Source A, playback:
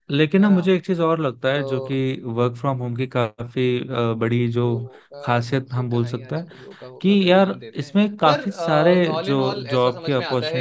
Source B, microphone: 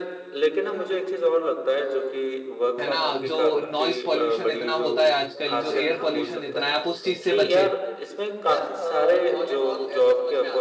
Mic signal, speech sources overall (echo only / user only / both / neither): both